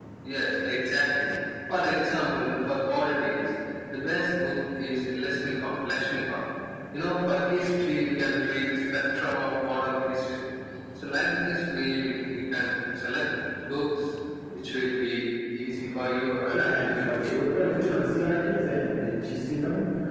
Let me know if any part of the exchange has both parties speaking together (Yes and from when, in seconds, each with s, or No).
Yes, from 16.5 s